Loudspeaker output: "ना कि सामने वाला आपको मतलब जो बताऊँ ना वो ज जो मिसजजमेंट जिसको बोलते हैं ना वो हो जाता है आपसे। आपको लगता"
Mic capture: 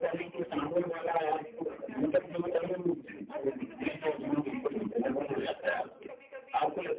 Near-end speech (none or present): present